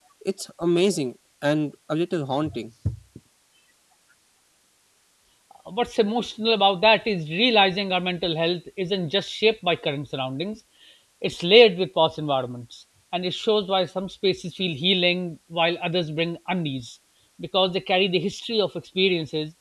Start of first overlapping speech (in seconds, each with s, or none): none